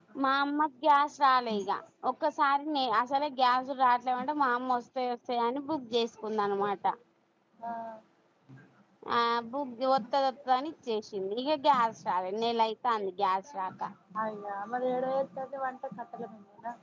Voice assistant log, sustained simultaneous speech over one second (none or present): none